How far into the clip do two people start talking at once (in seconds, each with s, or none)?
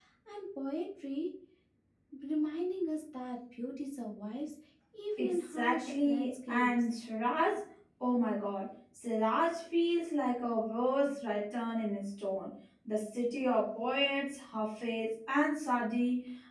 5.2 s